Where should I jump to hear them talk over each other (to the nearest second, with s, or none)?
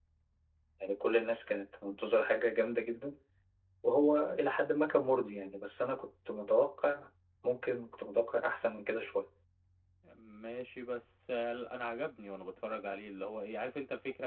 none